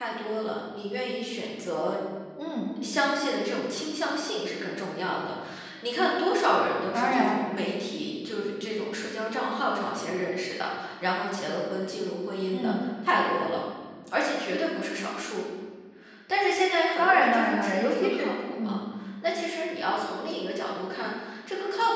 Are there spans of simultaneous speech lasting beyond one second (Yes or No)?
Yes